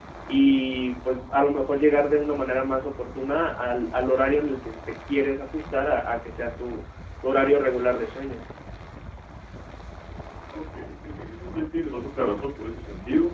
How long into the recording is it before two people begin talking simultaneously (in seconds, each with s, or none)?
none